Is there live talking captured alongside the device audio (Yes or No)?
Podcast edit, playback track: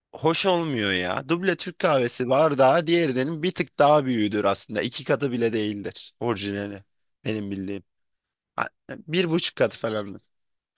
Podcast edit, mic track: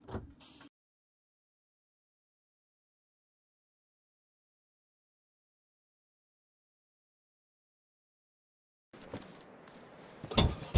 No